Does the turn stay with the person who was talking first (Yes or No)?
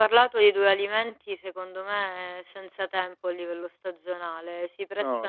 Yes